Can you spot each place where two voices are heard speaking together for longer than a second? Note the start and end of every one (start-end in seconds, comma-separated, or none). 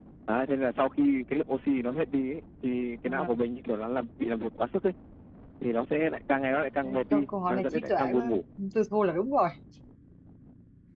7.1-8.4